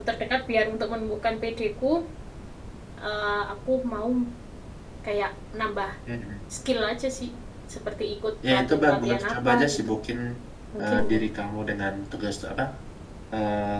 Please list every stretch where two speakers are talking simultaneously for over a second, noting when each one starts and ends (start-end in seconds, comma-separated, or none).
8.5-9.9